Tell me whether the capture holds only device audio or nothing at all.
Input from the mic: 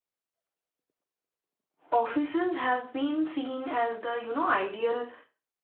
No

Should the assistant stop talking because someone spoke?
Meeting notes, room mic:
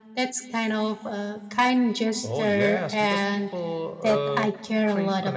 No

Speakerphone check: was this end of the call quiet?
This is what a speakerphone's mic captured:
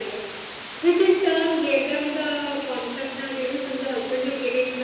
Yes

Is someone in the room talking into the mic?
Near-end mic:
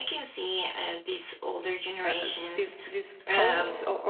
Yes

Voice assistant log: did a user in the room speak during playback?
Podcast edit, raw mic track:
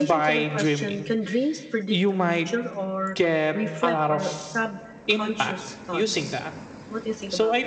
Yes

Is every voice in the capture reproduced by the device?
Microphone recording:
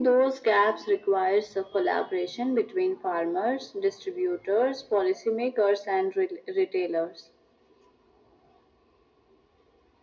Yes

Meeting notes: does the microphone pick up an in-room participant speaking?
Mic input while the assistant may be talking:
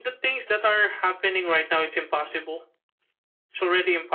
No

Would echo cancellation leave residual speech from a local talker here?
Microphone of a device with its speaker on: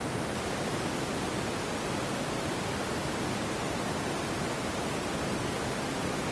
No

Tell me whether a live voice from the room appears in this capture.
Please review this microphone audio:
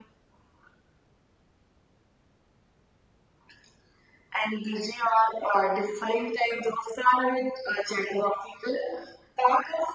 No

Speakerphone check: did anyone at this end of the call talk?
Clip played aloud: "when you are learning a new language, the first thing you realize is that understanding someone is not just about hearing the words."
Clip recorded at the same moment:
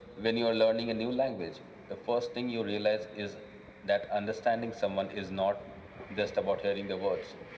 No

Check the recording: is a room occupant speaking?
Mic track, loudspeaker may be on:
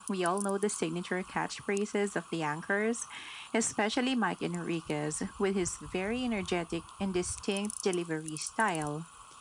No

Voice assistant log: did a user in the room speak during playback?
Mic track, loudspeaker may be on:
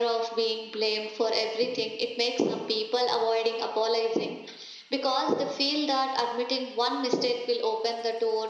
No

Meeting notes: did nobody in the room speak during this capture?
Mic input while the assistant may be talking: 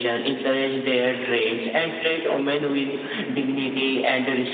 Yes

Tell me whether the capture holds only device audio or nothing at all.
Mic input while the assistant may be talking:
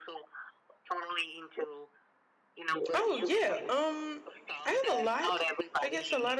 No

